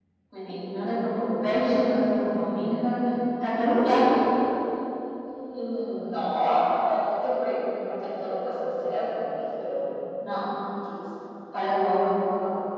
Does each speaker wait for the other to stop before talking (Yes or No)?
Yes